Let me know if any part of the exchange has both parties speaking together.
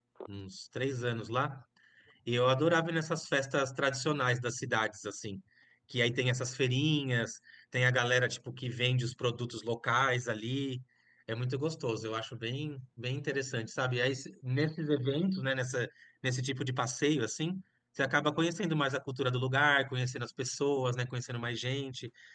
No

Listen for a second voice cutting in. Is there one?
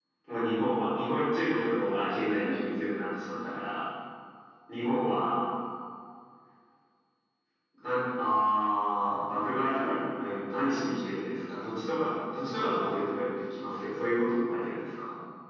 No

